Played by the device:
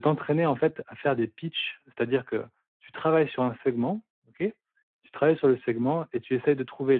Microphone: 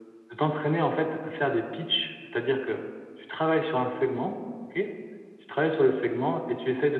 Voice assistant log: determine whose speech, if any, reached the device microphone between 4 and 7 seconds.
echo only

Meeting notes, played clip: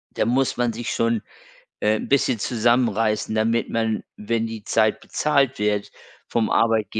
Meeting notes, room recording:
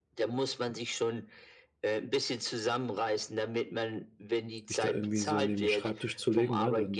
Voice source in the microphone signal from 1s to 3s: echo only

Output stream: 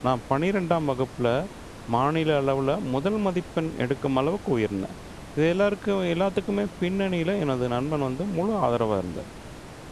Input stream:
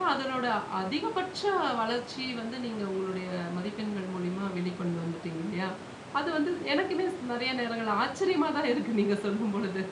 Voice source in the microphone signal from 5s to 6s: user only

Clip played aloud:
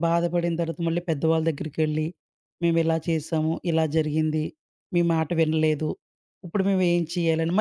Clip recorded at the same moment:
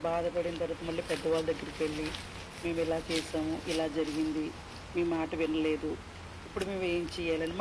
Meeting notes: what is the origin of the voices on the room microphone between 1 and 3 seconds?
echo only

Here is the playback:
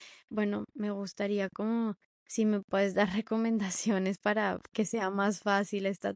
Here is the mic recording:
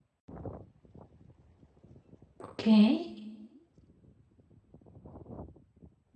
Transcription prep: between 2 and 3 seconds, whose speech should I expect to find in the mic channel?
user only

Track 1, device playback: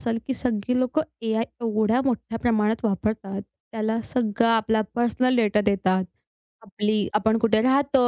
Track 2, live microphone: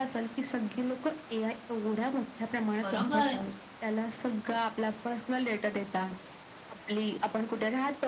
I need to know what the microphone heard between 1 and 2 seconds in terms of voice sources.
echo only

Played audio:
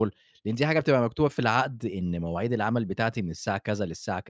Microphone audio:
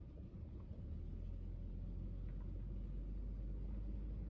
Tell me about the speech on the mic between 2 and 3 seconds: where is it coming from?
neither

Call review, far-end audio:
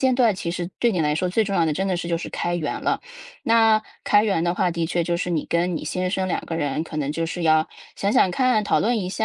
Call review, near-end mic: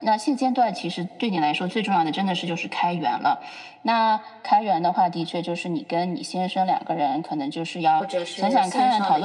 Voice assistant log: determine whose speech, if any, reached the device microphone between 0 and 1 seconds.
echo only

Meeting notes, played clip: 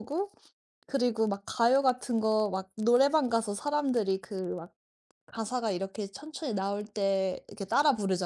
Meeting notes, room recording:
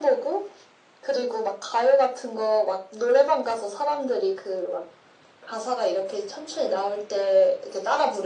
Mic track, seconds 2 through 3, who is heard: echo only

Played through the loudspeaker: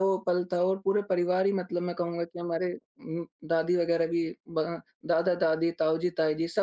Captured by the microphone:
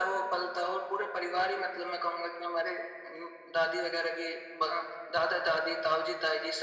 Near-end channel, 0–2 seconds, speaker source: echo only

